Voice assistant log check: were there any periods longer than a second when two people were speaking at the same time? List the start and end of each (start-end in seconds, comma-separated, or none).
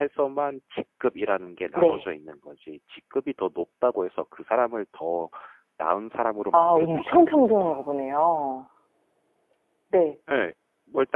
6.5-8.2